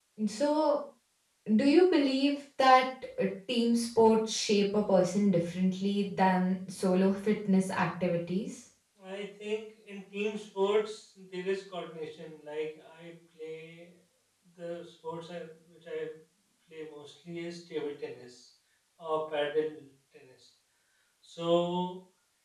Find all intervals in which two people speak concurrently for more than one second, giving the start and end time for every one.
none

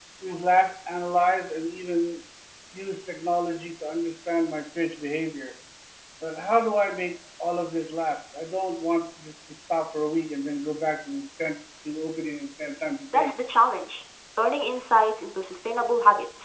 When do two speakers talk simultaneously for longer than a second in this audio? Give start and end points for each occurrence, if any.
none

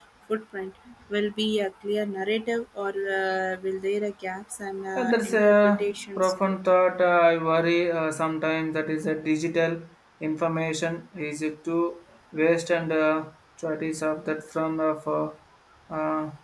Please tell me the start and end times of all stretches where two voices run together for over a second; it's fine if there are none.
5.0-6.6

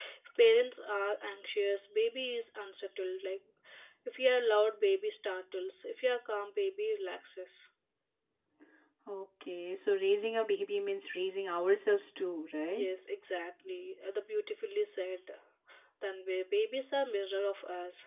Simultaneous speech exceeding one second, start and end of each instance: none

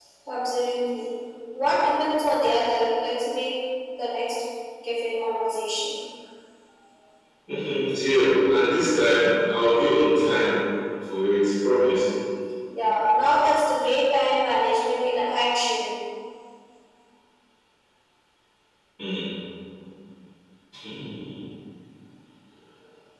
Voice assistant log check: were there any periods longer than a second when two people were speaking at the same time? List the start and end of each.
none

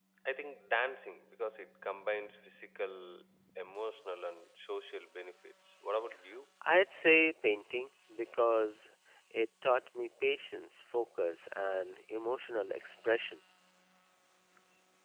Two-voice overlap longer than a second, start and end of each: none

